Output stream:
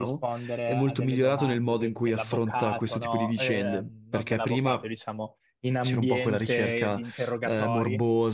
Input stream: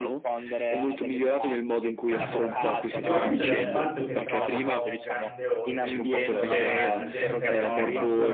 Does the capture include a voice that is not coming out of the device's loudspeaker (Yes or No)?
Yes